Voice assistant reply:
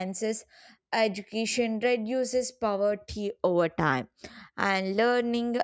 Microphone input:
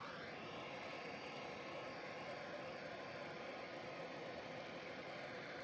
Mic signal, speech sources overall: neither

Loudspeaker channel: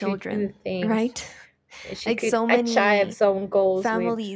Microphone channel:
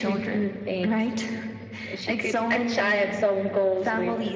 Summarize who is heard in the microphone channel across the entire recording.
echo only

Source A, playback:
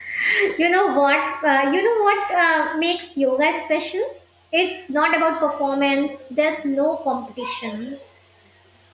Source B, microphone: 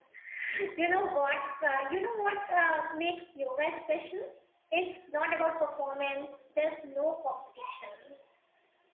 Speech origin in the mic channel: echo only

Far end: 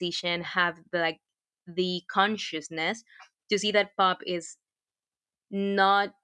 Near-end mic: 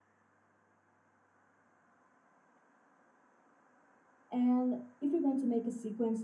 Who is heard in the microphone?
user only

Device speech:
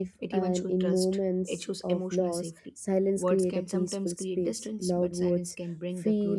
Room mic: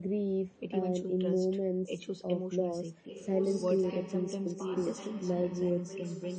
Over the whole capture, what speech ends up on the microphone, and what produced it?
both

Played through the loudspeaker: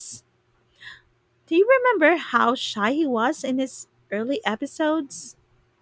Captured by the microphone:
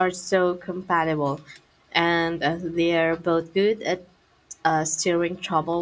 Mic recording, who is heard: user only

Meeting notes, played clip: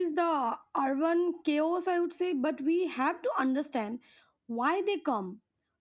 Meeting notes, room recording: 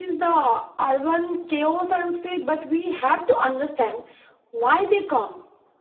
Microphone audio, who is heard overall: echo only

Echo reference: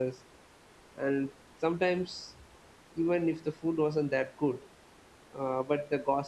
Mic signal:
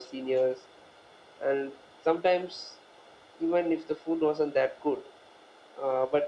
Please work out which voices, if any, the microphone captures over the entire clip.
echo only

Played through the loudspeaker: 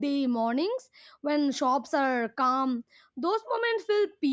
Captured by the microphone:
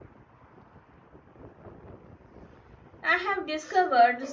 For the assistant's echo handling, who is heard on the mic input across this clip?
user only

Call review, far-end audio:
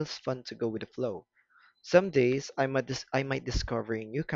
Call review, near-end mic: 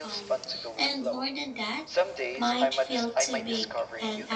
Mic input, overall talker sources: both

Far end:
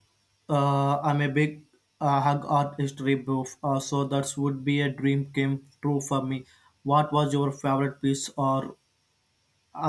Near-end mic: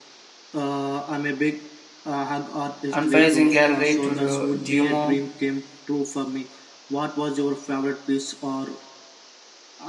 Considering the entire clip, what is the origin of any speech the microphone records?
both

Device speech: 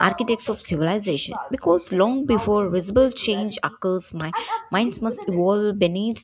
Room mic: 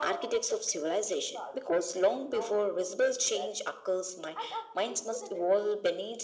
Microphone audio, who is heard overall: echo only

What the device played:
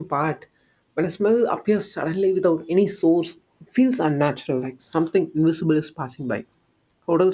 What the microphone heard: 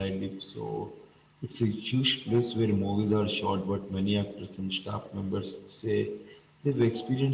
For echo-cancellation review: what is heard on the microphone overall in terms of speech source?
user only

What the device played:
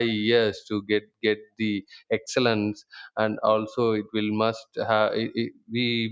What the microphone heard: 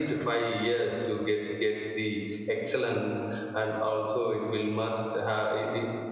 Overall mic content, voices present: echo only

